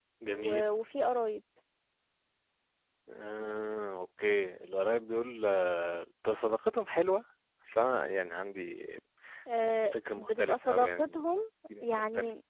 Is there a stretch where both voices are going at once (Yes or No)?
Yes